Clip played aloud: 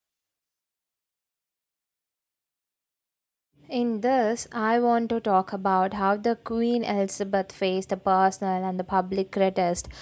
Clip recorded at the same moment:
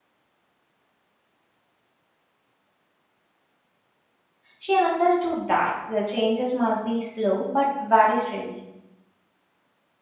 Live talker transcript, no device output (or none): She understood that the changes must be slow but very steady.